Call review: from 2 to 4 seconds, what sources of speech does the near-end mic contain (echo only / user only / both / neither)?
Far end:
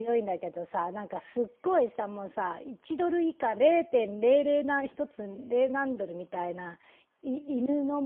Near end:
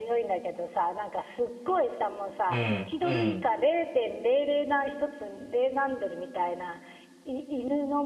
both